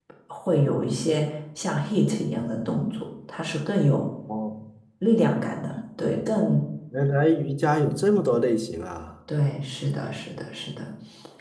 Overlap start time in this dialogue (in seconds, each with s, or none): none